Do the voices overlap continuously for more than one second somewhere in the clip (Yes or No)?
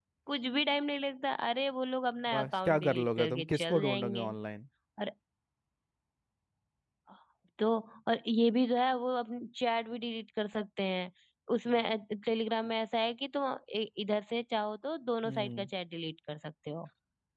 Yes